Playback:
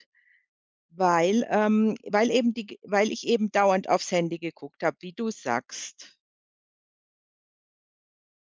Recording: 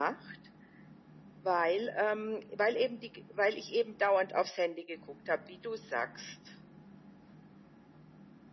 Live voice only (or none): none